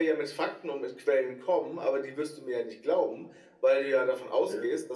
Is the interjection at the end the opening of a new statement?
No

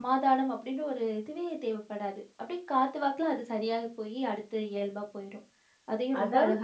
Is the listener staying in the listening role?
No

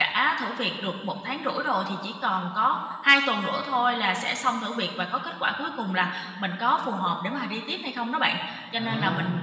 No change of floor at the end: Yes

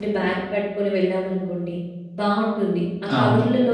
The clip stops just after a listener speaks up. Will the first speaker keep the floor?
Yes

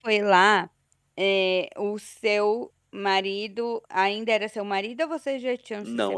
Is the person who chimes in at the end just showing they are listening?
No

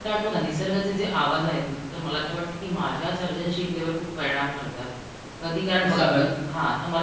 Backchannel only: Yes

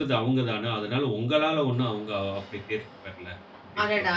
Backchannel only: No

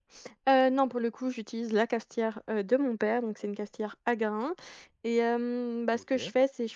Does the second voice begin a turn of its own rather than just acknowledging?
No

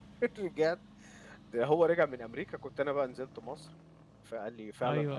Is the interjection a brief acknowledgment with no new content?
Yes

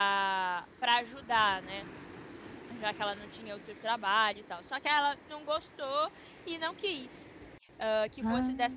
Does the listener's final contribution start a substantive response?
No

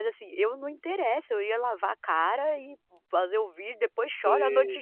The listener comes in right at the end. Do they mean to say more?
No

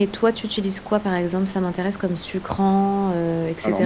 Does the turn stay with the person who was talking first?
No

